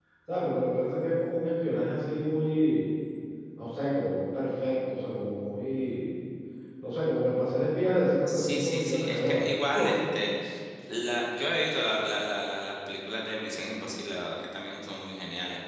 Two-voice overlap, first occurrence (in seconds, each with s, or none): 8.3 s